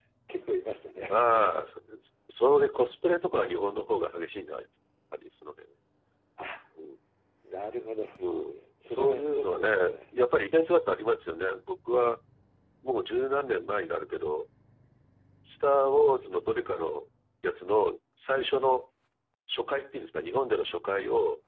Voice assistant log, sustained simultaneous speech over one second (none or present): present